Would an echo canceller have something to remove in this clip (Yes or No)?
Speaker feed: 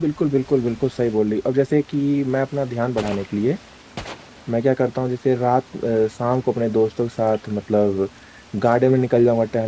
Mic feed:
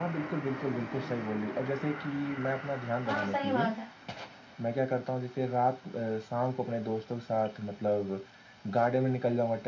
Yes